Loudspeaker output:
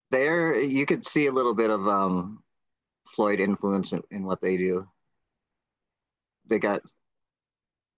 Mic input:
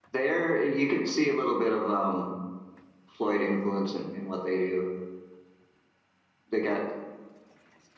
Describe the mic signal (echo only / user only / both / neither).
echo only